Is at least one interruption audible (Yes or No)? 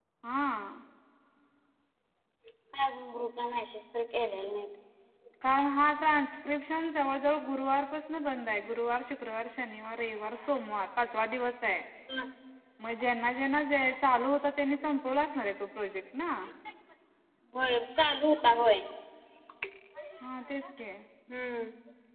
No